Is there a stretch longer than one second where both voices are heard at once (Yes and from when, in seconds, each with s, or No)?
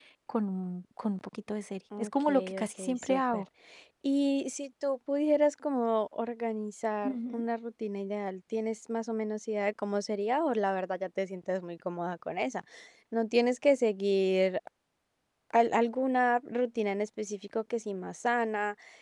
Yes, from 2.0 s